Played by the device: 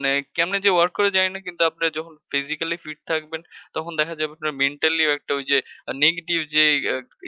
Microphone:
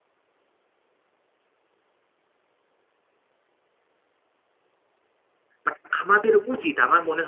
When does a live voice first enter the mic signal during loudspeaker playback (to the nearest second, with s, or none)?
6 s